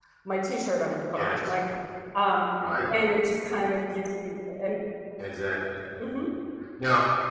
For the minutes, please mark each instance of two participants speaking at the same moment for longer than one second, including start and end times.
none

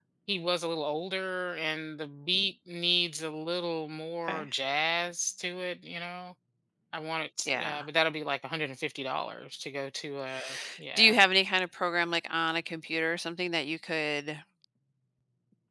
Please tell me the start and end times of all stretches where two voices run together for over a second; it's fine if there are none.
none

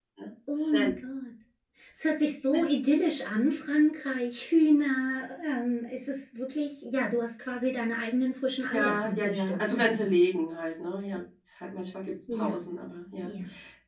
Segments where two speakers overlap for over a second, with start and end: 8.7-10.1

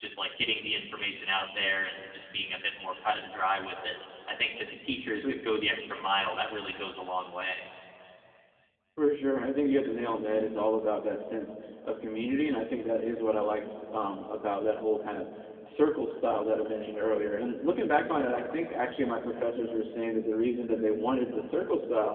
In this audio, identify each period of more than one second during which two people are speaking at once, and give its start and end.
none

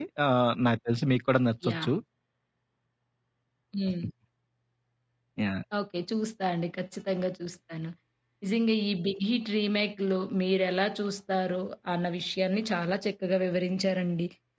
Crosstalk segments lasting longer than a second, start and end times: none

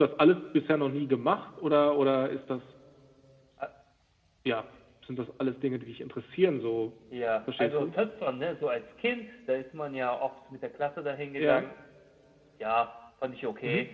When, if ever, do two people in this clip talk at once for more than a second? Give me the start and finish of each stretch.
none

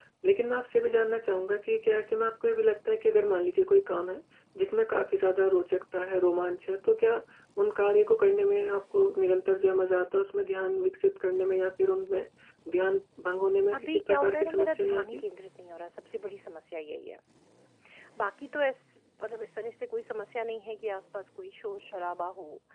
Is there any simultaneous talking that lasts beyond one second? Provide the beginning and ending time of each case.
13.7-15.2

